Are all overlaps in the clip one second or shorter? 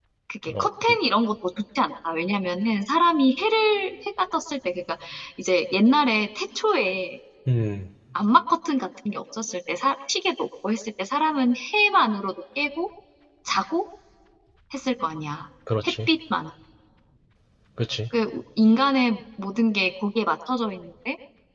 Yes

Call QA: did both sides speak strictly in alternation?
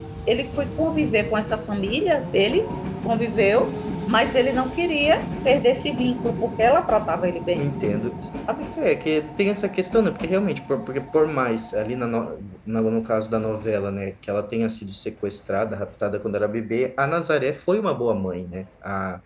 Yes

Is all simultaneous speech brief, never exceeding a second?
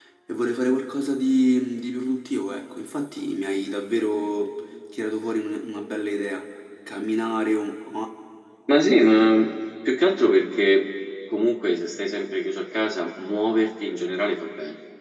Yes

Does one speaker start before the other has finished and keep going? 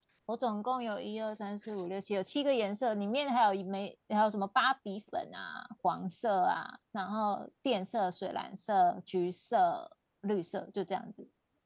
No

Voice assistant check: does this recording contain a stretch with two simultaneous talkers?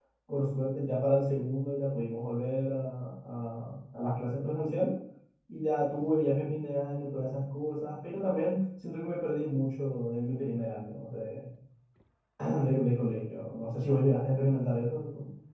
No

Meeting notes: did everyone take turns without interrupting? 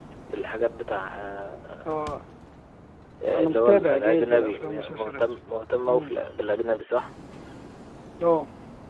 No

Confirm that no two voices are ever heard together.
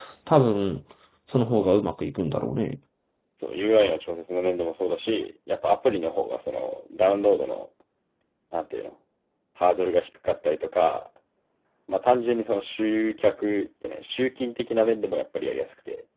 Yes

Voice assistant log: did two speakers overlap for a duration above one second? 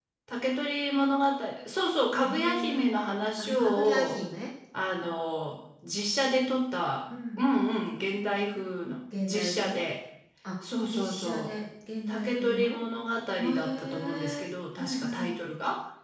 Yes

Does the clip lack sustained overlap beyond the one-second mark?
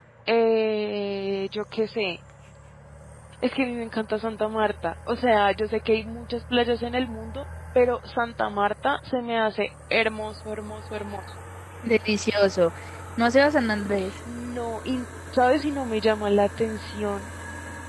Yes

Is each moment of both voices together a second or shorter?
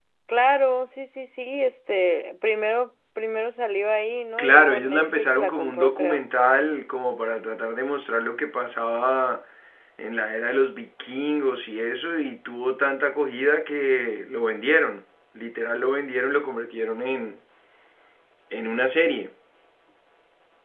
No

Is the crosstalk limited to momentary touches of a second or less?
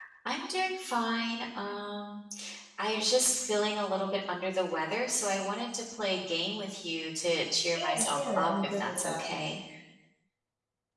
No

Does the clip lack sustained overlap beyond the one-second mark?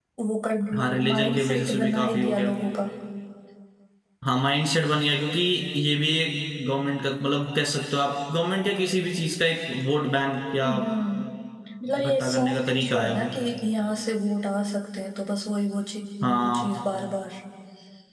No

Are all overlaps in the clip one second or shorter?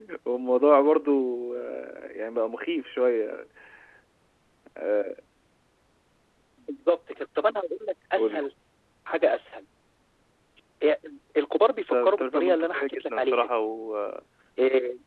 No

